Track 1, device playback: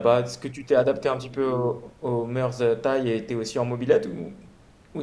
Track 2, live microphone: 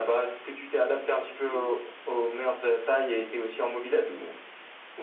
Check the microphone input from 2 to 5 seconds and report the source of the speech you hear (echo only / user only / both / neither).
echo only